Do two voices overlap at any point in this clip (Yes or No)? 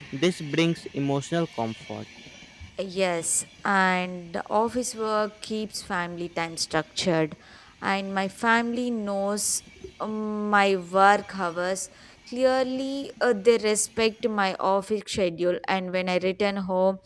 No